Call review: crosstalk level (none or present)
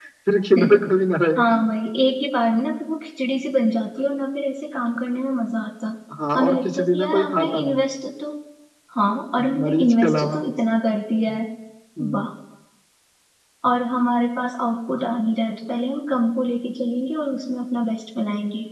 present